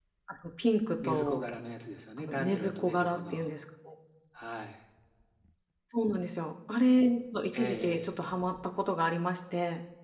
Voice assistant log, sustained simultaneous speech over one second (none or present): present